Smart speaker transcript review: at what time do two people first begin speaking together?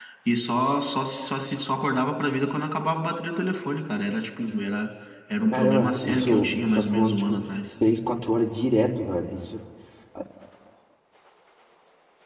5.5 s

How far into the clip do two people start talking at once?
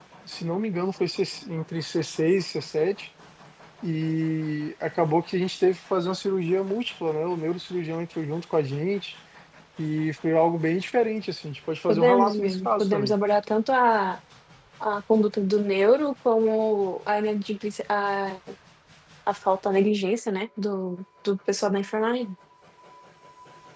11.9 s

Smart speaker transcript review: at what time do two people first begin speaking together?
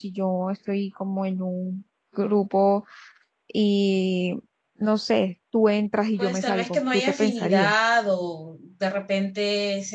6.2 s

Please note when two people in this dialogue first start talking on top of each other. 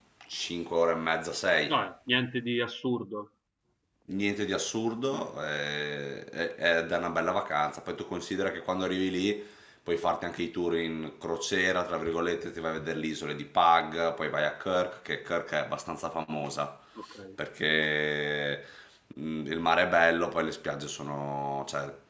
none

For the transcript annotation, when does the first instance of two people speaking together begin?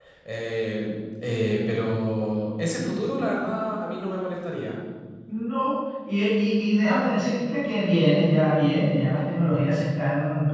none

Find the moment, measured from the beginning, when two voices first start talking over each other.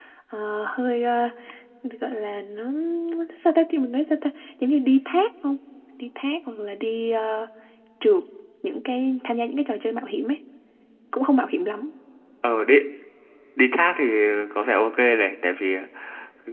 none

